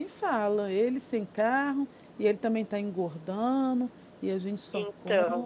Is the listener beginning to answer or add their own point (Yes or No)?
No